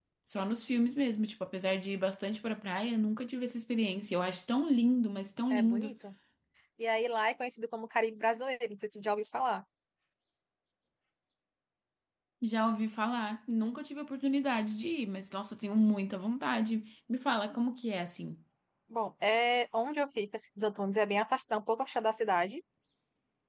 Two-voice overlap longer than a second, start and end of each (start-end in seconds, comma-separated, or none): none